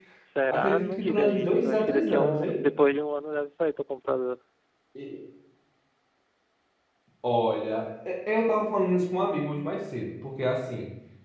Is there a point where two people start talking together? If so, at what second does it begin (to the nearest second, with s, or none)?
1 s